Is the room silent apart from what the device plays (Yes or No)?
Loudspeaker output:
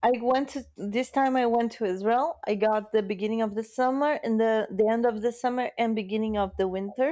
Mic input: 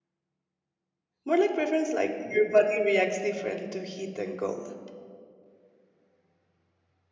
No